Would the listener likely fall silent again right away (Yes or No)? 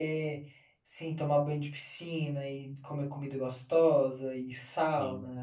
Yes